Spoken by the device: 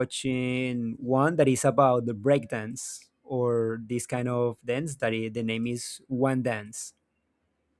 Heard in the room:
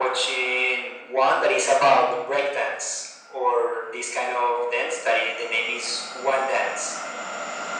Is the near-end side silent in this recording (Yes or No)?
Yes